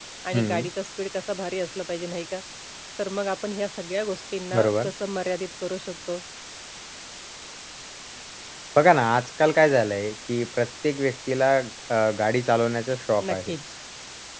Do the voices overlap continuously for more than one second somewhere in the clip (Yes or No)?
No